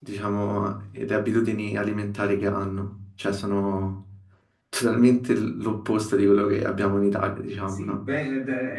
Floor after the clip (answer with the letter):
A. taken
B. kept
A